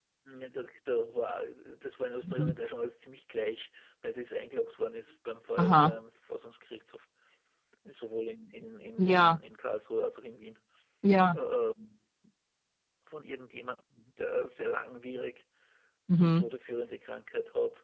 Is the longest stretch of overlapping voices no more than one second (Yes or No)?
Yes